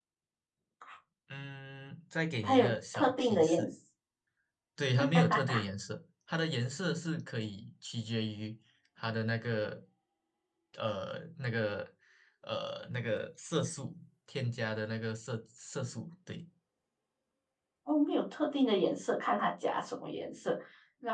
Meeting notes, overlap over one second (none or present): present